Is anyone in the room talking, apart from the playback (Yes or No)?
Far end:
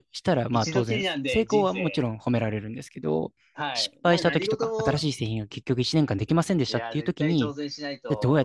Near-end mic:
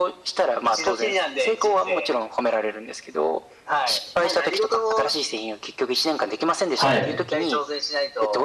Yes